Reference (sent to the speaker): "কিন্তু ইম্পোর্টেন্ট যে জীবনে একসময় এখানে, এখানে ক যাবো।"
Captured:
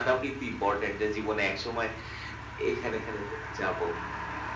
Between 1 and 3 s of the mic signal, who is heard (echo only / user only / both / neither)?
echo only